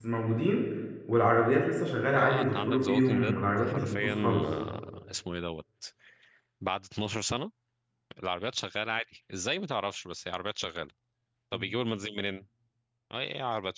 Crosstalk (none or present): present